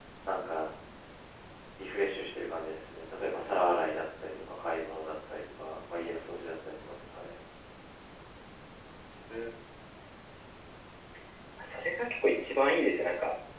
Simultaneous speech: No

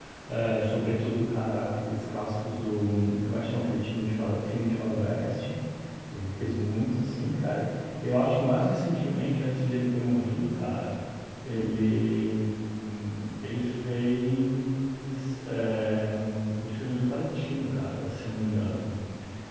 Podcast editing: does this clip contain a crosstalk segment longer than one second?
No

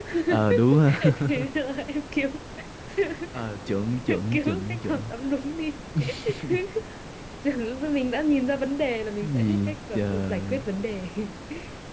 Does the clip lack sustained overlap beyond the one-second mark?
No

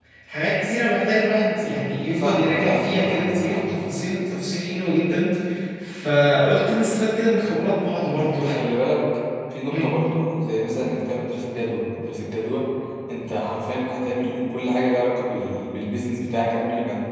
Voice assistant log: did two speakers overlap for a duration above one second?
Yes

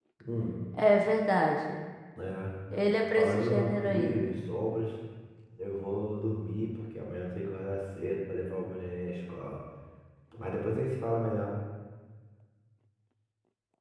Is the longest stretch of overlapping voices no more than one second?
No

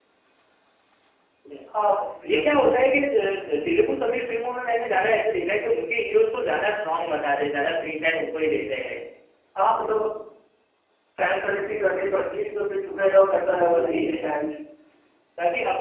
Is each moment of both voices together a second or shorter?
Yes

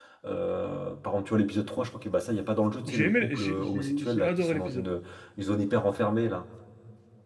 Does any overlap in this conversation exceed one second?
Yes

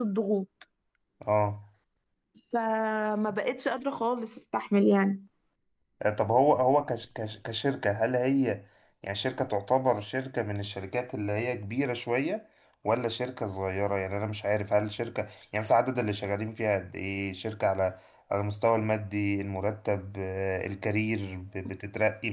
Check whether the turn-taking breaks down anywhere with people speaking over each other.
No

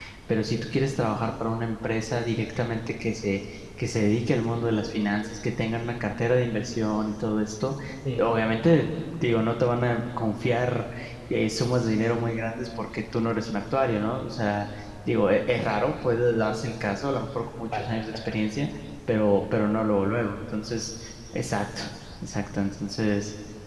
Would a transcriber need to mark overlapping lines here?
Yes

